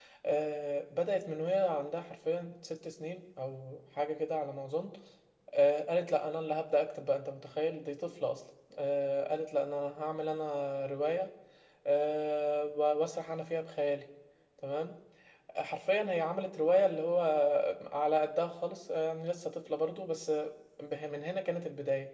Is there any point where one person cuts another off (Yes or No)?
No